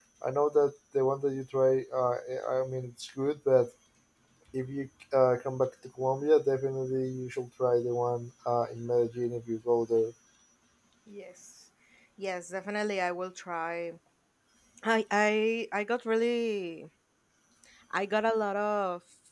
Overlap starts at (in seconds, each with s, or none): none